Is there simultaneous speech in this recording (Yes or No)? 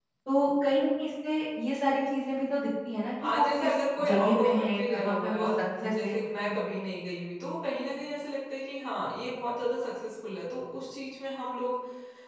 Yes